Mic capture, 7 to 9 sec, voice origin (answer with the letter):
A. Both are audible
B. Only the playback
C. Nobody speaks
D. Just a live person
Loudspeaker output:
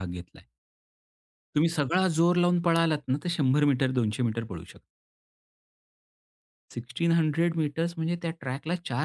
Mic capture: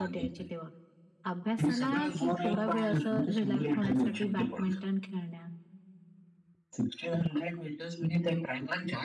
B